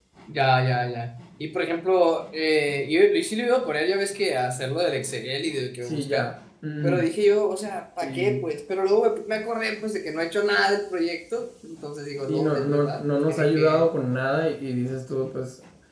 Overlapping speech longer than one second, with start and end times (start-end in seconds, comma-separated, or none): 12.3-13.8